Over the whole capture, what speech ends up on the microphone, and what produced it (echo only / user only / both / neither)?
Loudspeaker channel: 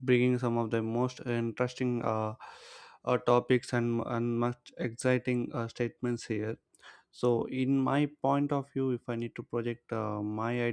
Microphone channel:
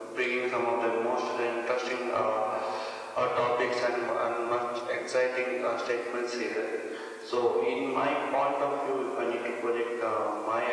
echo only